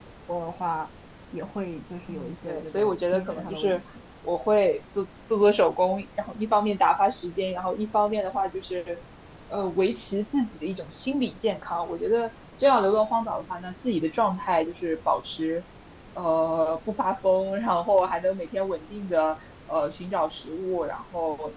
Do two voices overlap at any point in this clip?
Yes, from 2.1 s

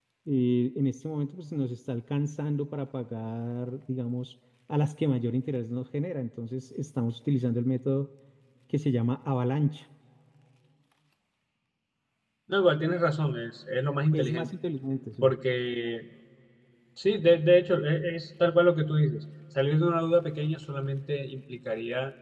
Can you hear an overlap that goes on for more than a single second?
No

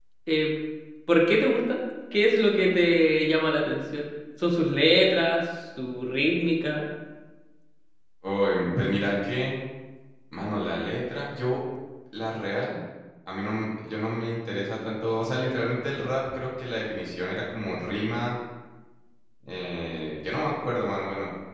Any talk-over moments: No

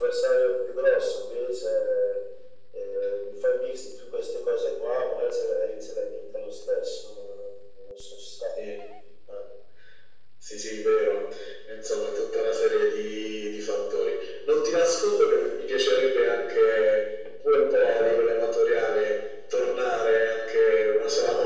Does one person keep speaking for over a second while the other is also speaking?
No

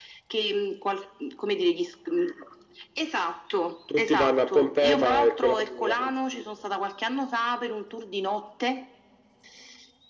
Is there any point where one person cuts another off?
Yes, from 3.9 s

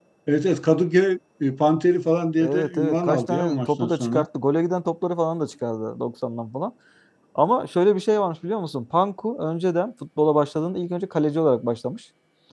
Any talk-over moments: Yes, from 2.4 s

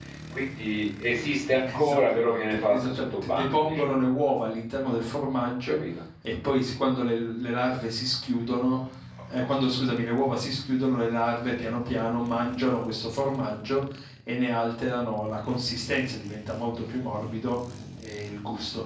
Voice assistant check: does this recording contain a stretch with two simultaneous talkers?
Yes, from 1.7 s

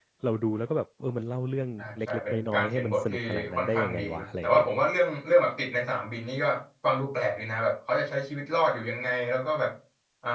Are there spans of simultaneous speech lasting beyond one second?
Yes, from 1.8 s

